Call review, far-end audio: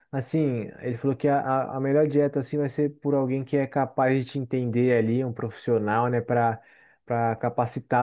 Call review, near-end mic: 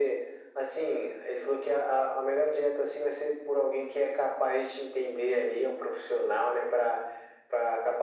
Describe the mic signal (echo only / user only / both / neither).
echo only